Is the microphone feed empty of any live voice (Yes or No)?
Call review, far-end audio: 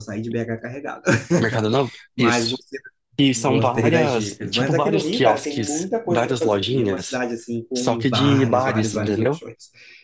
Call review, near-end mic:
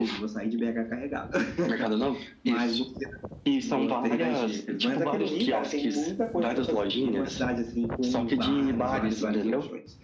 Yes